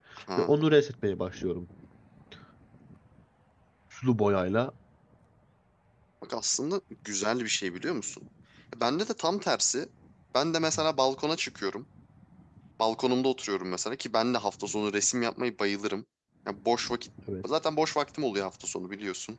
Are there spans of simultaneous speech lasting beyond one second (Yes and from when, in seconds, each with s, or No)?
No